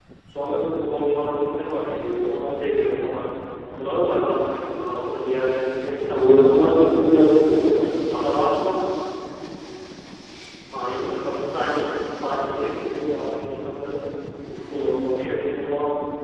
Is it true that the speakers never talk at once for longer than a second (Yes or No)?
No